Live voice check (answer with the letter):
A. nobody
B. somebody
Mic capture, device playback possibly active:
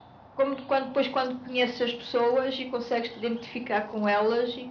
A